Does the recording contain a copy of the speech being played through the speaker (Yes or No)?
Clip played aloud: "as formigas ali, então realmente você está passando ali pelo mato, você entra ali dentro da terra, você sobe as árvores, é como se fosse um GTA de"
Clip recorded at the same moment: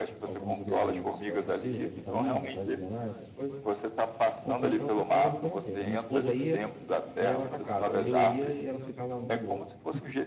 Yes